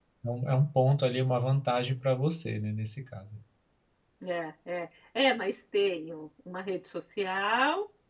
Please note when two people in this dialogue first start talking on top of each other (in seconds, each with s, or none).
none